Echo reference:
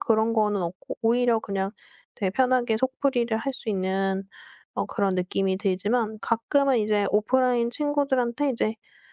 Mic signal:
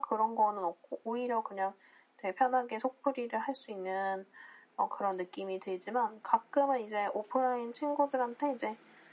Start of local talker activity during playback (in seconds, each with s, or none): none